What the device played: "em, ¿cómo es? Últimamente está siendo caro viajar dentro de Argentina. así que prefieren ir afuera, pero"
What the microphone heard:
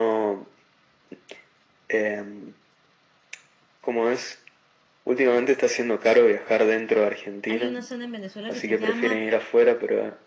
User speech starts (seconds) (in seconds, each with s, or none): 7.4 s